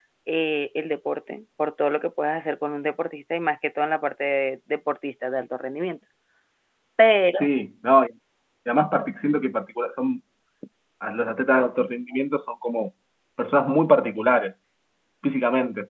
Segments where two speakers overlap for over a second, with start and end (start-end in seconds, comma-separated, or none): none